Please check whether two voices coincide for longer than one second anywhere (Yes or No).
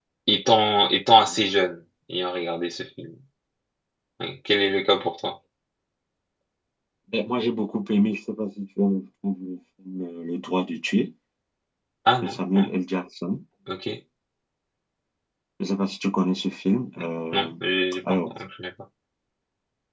No